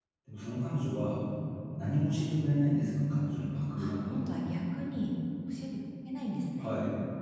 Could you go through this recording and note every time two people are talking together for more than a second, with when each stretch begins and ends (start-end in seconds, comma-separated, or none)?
none